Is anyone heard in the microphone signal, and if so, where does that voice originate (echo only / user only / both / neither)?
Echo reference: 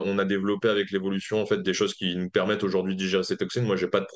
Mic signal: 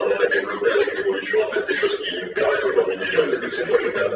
both